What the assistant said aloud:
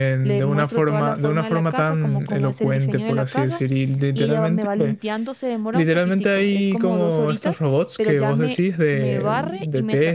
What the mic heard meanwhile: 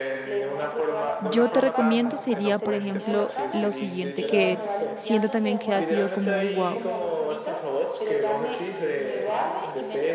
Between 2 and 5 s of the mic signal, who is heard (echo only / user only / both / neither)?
both